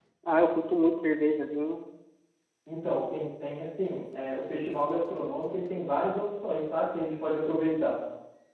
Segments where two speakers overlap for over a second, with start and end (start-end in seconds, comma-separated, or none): none